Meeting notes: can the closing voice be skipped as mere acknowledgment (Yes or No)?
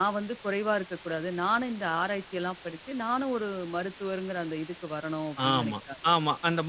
No